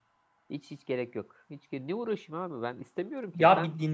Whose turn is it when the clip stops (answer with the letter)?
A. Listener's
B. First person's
A